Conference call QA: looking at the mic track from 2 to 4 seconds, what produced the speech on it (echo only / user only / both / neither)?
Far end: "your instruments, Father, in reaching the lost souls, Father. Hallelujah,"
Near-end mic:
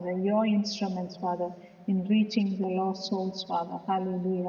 echo only